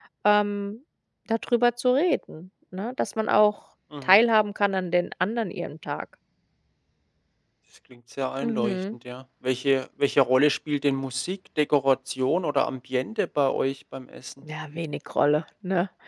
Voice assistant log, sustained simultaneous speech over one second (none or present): none